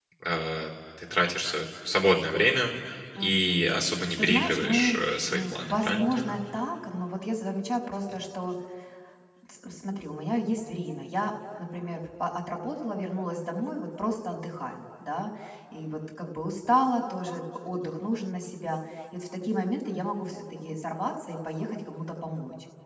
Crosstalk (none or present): present